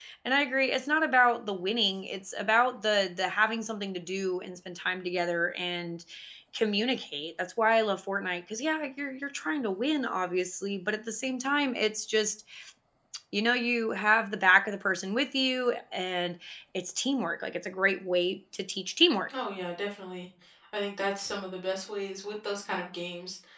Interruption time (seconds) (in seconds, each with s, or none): none